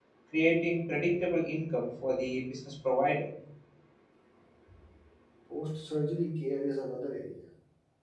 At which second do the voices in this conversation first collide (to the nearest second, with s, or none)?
none